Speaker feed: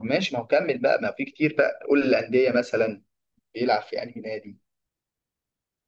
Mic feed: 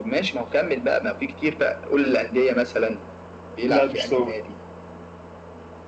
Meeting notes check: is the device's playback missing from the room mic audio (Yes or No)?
No